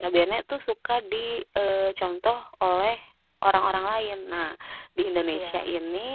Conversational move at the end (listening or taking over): listening